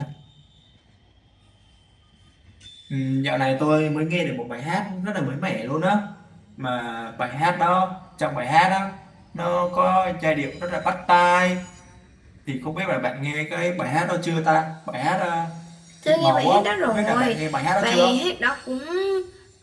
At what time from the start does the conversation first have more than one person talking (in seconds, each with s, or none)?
16.0 s